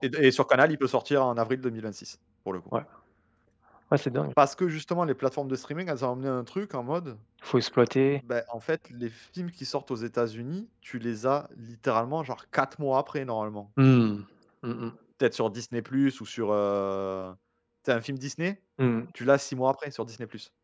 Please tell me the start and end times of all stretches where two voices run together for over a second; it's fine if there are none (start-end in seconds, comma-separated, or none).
none